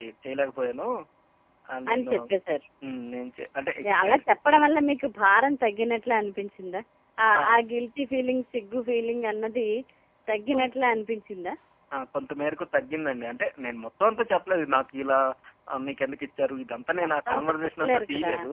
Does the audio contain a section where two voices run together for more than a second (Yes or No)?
Yes